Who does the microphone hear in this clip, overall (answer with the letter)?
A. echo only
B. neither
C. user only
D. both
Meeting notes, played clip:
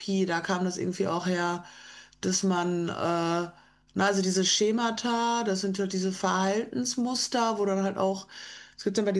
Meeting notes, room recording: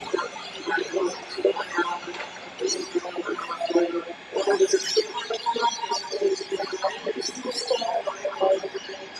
A